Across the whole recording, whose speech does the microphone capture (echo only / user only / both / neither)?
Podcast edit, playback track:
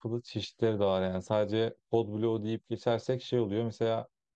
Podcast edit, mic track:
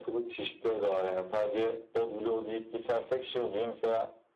echo only